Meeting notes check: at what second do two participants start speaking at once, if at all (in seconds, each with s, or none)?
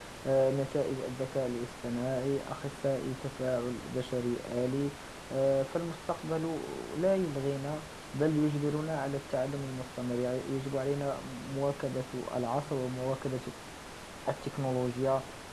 none